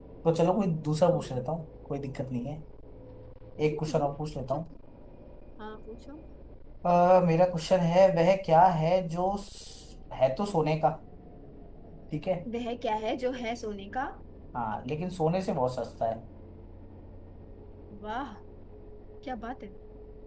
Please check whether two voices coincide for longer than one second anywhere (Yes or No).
No